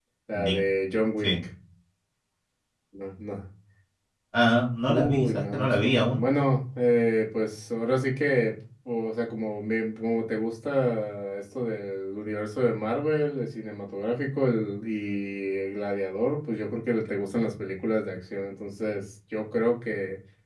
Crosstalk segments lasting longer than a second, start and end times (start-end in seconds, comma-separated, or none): 4.9-6.2